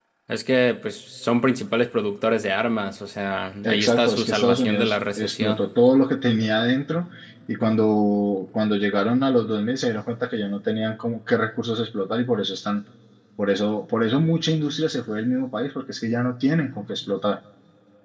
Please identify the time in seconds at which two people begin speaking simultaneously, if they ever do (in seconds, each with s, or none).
3.6 s